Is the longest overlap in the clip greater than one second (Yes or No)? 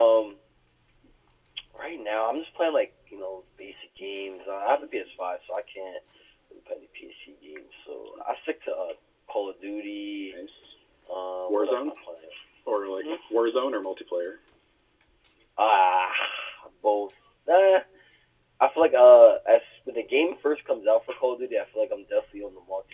No